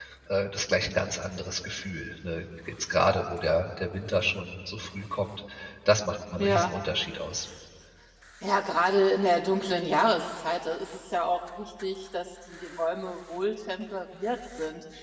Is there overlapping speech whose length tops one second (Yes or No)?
No